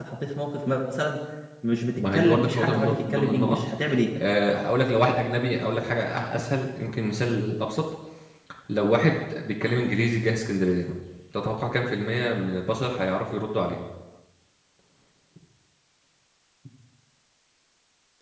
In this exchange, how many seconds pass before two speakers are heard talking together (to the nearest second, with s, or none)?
2 s